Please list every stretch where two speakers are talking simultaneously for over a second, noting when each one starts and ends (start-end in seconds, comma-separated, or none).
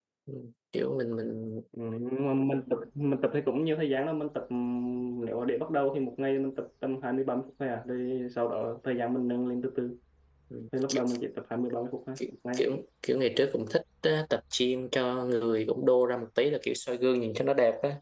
none